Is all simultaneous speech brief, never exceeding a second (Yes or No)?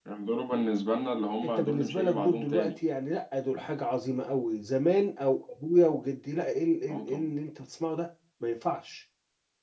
No